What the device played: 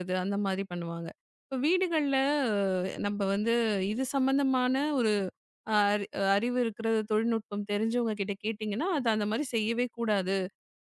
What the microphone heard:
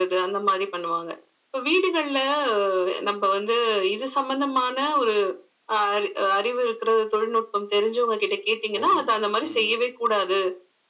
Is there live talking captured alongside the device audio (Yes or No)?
Yes